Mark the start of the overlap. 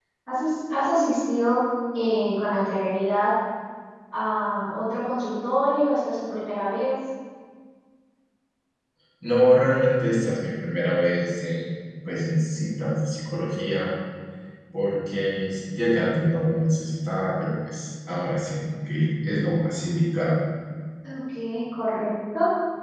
none

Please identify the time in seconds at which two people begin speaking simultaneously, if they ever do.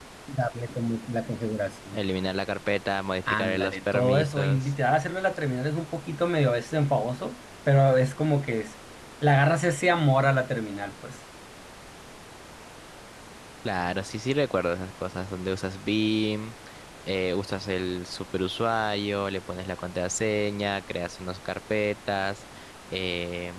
3.3 s

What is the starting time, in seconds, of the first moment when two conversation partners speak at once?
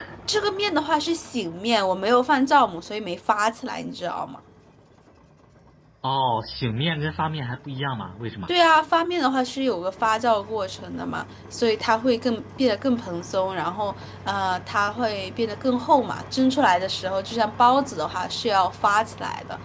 none

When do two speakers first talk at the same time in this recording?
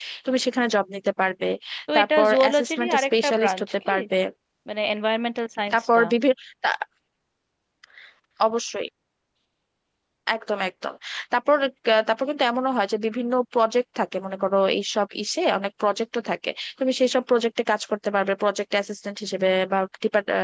1.9 s

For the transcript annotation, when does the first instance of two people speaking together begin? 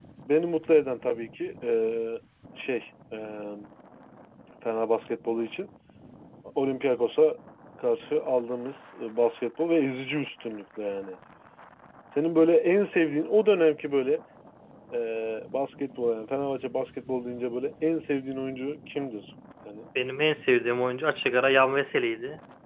none

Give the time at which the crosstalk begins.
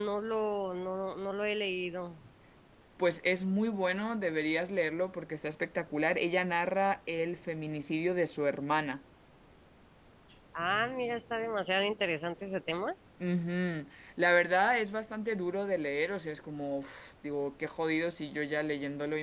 none

